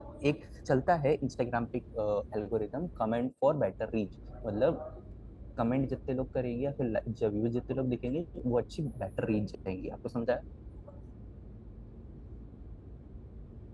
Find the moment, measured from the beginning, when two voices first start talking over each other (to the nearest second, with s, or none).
none